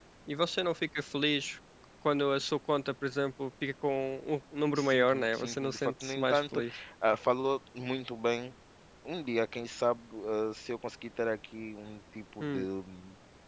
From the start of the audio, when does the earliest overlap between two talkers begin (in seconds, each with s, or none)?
4.8 s